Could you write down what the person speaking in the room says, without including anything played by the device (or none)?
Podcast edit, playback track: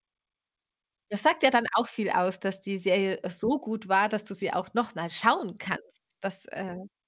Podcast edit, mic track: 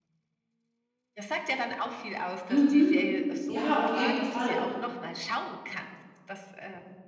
Mhm. Ja, auf jeden Fall.